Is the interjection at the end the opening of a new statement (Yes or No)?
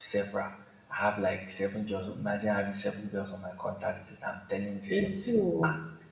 No